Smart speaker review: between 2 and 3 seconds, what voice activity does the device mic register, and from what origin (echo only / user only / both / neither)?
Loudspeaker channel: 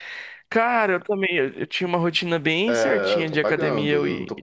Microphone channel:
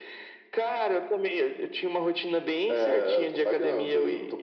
echo only